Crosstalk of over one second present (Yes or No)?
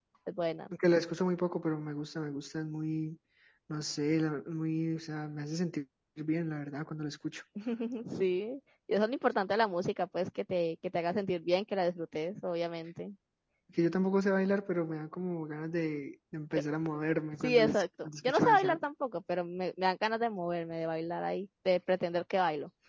Yes